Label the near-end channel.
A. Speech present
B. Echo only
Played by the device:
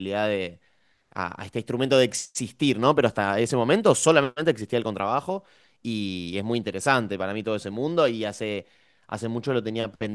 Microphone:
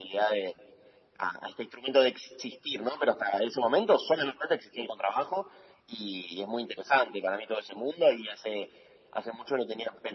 B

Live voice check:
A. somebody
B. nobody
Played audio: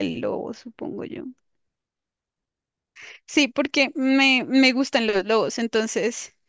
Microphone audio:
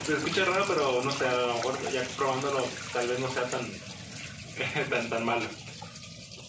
A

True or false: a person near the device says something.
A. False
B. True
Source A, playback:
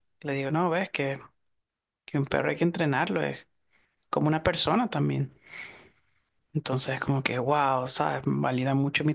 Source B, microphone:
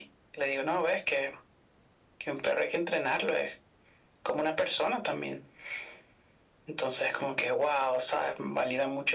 A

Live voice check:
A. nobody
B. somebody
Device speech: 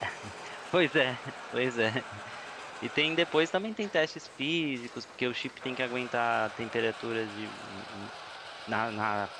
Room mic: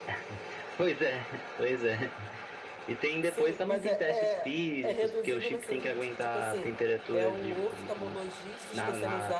B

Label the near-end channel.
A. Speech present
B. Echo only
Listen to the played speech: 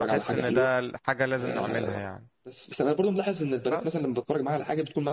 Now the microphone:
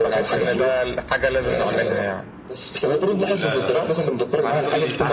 A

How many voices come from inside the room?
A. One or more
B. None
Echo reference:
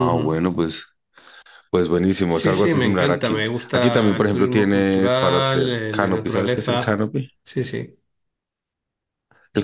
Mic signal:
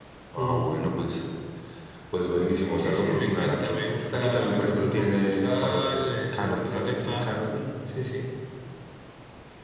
B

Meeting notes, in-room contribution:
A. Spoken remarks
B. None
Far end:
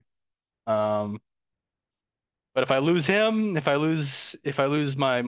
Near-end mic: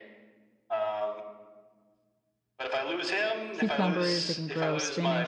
A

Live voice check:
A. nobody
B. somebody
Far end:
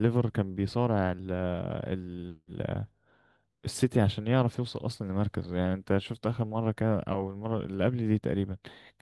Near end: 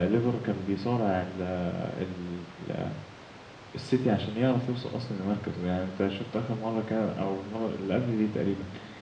A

